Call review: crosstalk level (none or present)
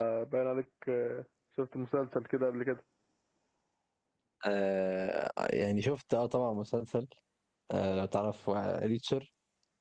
none